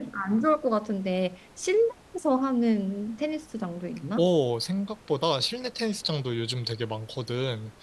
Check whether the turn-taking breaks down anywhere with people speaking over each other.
No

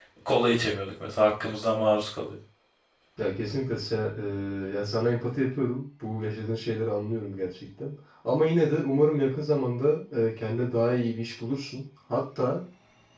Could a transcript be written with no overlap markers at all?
Yes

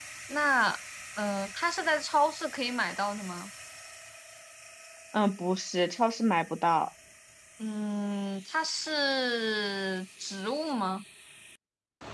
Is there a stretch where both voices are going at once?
No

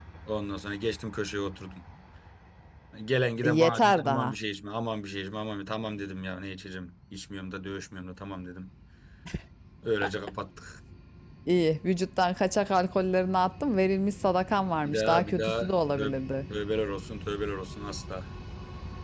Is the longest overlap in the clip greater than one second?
Yes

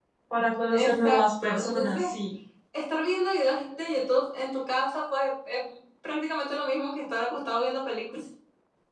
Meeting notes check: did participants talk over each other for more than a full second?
Yes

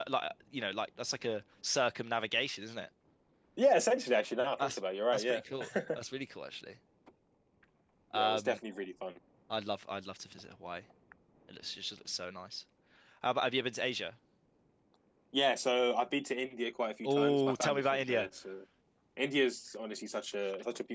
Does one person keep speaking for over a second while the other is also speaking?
Yes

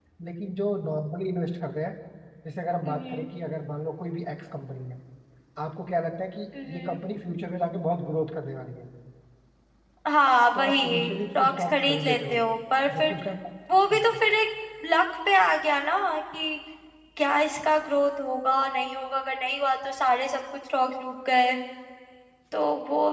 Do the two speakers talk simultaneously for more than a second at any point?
Yes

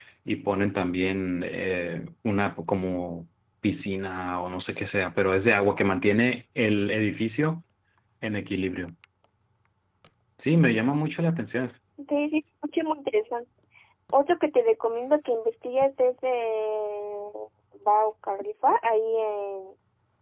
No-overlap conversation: Yes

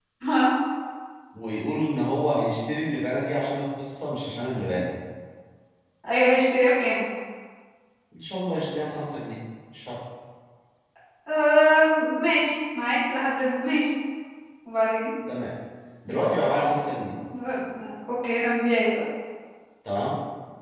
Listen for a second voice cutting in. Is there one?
No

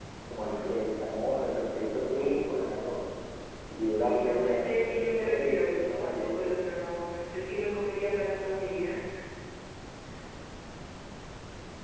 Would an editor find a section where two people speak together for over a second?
Yes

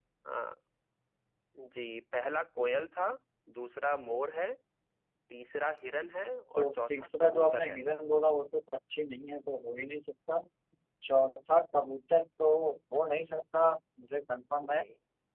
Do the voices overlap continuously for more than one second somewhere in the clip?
Yes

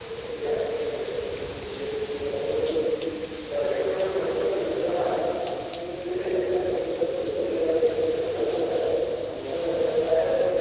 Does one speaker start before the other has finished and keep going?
No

